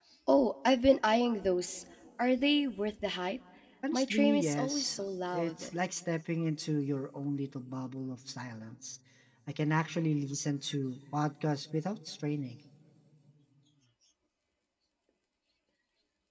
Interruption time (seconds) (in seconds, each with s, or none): 3.9 s